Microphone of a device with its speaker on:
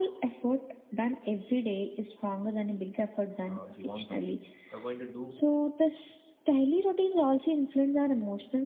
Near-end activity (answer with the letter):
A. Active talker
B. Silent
A